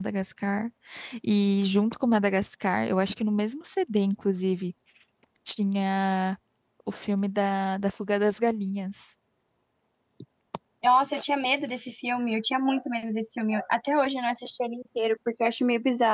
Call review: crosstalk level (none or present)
none